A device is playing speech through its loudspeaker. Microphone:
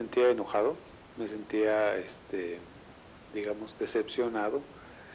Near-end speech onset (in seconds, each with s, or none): none